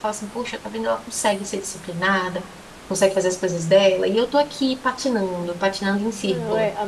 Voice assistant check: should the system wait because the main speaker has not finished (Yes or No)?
No